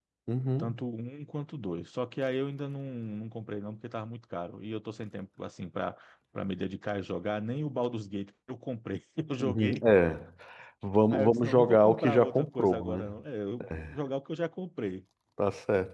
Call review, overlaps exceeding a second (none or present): present